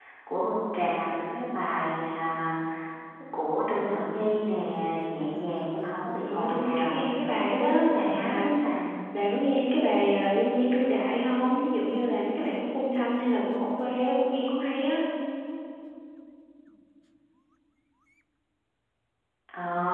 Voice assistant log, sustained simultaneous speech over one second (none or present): present